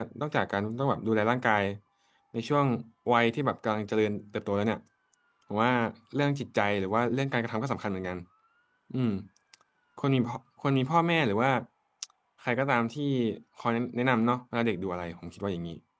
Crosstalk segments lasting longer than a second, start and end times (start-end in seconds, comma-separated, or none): none